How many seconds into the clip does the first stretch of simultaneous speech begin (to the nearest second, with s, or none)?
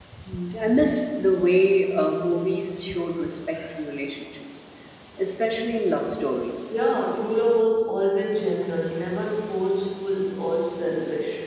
none